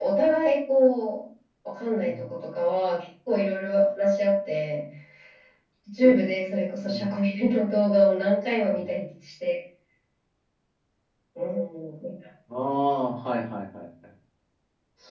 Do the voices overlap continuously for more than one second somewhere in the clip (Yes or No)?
No